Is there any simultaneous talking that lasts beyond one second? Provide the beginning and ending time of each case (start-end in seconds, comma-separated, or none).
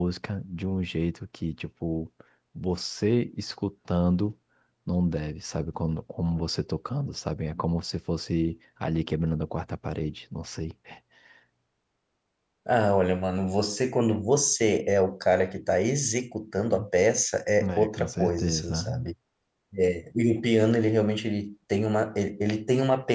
17.6-19.1